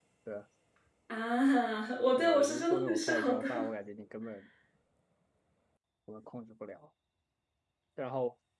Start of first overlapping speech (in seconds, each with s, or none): 2.2 s